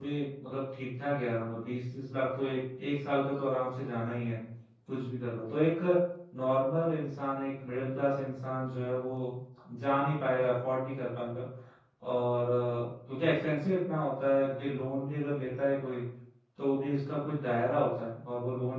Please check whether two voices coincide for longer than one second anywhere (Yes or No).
No